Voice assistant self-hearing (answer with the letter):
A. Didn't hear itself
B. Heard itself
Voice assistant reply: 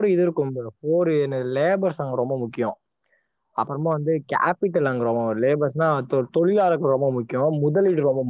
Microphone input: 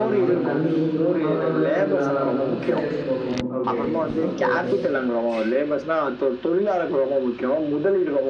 B